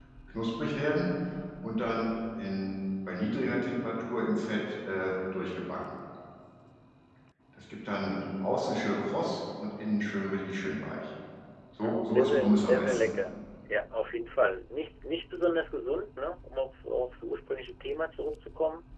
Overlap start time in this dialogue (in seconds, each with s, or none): 11.8 s